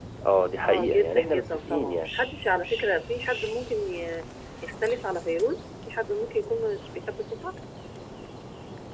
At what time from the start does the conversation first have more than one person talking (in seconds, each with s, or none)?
0.6 s